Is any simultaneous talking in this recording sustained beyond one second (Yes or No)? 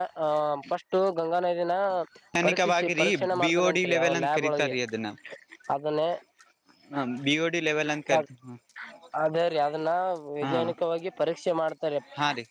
Yes